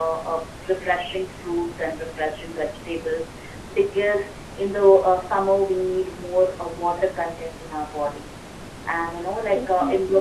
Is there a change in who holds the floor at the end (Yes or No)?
No